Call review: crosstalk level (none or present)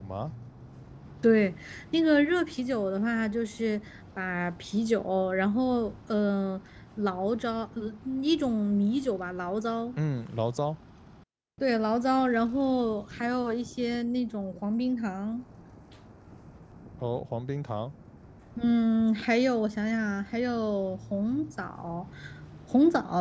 none